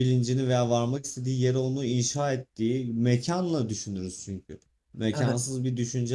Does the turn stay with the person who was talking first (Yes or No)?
Yes